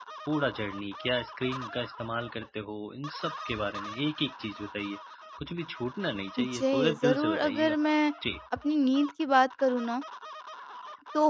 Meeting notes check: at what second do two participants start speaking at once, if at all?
6.4 s

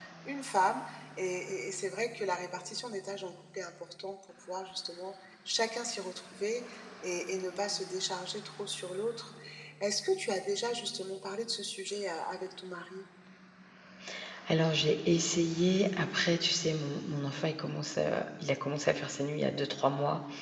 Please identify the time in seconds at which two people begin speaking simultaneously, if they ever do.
none

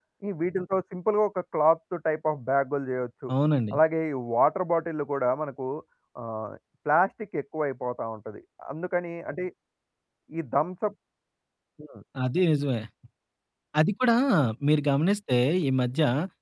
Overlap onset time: none

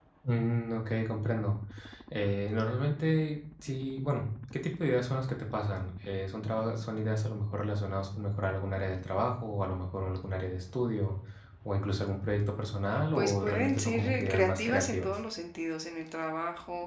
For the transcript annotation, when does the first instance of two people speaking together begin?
12.9 s

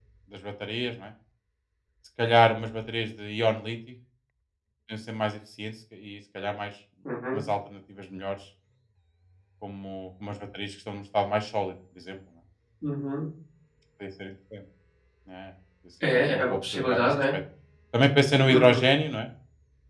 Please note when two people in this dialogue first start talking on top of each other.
16.1 s

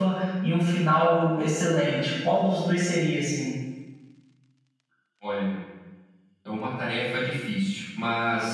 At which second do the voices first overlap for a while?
none

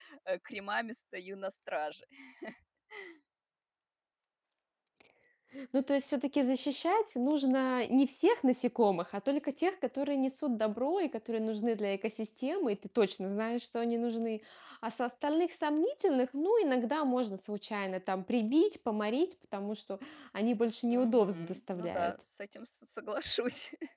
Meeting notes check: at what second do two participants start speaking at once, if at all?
20.9 s

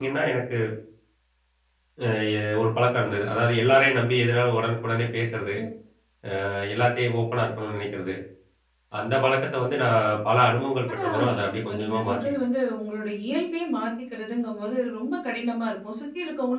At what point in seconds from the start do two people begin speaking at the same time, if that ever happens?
10.9 s

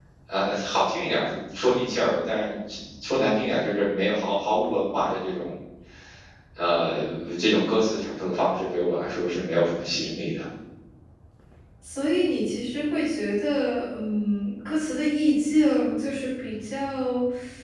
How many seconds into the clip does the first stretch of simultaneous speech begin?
none

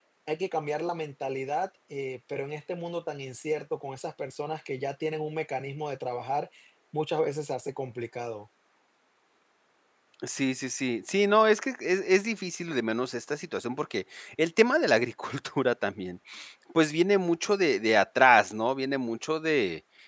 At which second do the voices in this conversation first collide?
none

